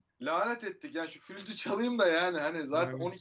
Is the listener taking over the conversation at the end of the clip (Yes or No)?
No